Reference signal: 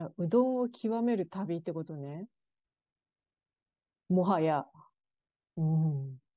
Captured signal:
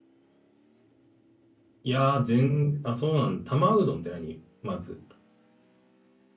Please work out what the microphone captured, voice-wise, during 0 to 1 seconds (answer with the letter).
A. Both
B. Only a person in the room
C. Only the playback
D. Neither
D